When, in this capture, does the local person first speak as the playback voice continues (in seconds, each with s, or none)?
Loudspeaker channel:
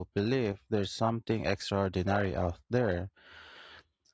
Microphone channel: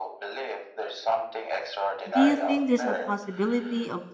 2.1 s